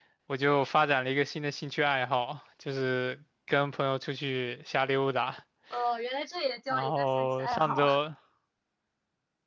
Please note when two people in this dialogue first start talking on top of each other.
6.7 s

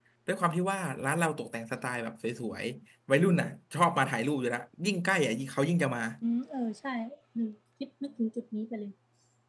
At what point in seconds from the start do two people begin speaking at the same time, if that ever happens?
none

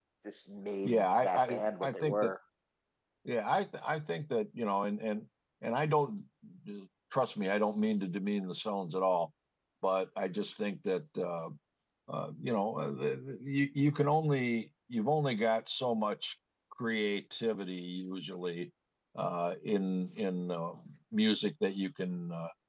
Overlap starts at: 0.8 s

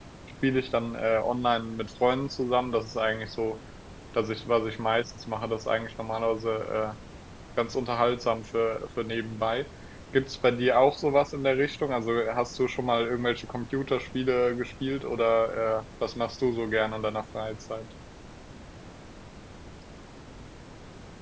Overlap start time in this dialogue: none

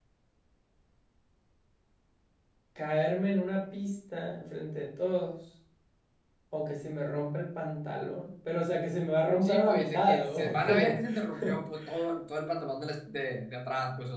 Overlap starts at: 9.4 s

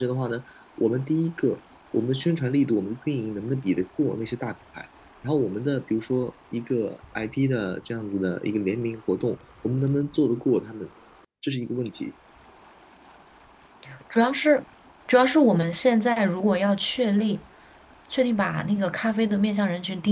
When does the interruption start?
none

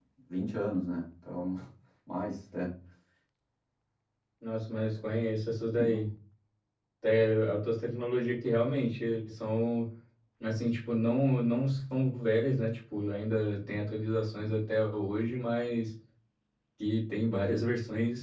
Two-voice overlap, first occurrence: none

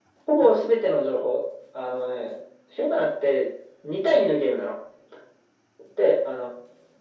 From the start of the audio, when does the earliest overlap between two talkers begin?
none

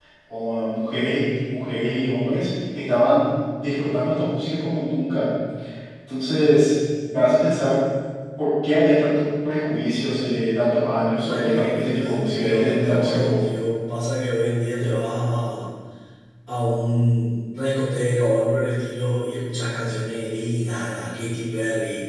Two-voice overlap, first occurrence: 11.1 s

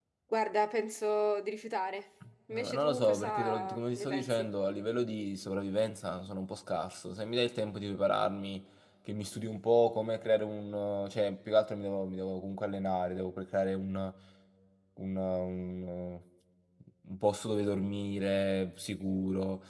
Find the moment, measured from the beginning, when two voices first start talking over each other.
2.5 s

